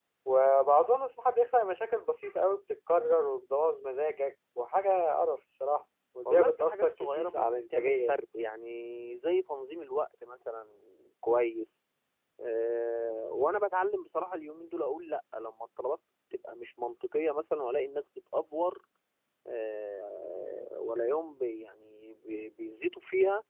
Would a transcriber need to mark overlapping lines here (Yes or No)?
Yes